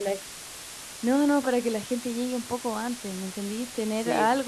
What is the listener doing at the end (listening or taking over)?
listening